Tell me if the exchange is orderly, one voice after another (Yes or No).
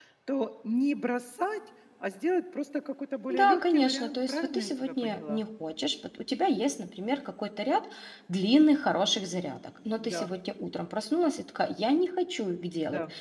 No